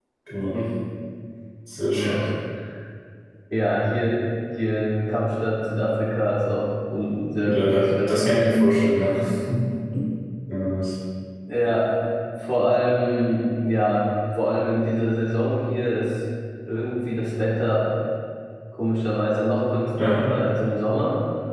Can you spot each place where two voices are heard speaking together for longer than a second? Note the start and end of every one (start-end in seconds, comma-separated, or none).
7.4-8.6